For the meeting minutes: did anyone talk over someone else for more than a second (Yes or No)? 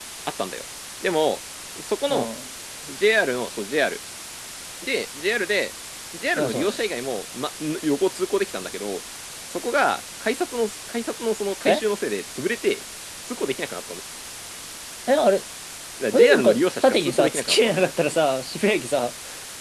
Yes